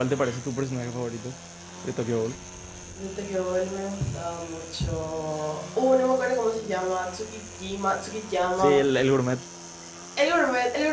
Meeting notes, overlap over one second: none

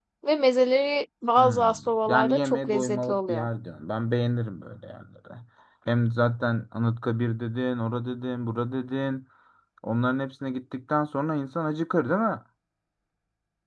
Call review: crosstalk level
present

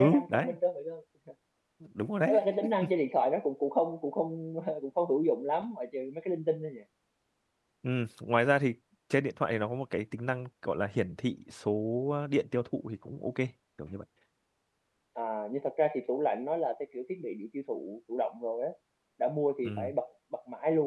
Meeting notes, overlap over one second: none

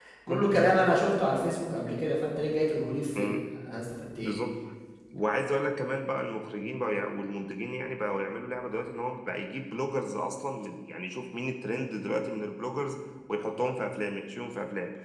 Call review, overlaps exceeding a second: none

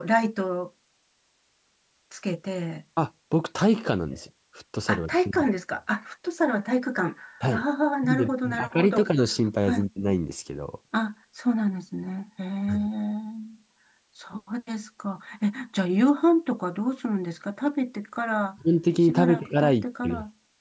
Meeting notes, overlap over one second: present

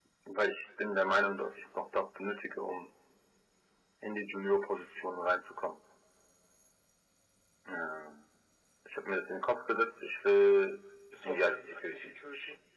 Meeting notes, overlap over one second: present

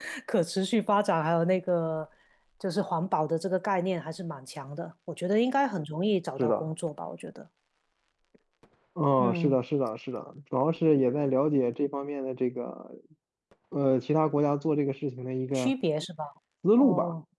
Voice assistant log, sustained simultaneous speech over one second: none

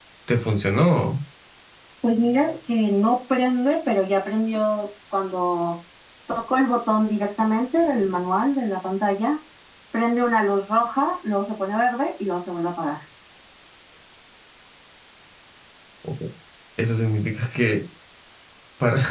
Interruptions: none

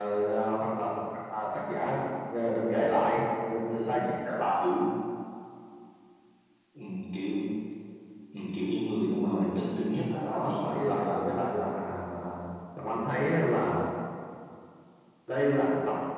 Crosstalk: present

